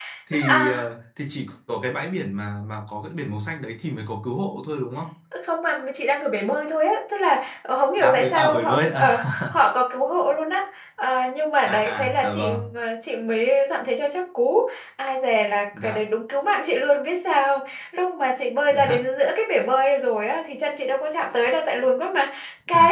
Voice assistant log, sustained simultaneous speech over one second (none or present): present